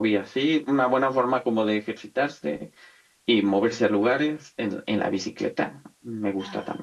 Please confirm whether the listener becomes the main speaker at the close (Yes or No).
Yes